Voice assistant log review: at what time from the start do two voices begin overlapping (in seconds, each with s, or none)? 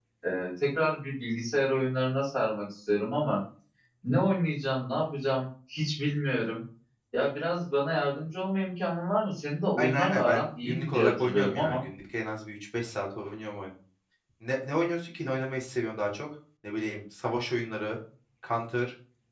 9.8 s